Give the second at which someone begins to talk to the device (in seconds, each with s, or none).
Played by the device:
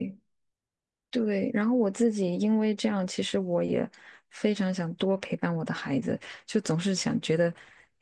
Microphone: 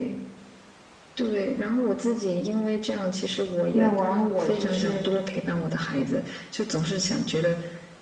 3.7 s